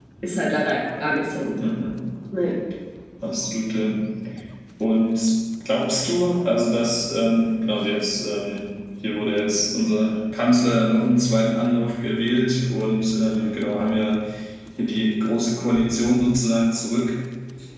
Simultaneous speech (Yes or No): No